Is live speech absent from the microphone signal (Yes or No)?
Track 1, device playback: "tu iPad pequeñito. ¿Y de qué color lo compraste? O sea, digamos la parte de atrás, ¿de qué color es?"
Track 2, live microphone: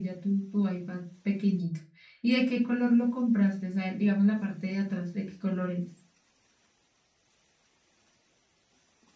Yes